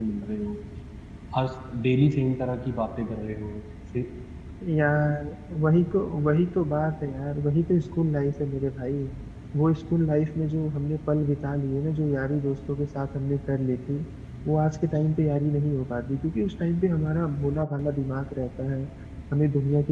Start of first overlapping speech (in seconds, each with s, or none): none